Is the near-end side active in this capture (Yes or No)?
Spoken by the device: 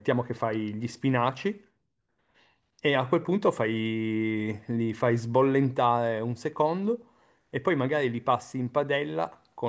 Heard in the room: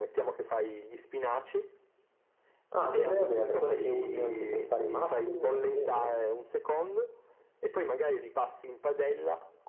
Yes